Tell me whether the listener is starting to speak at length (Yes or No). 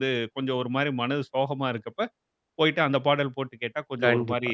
Yes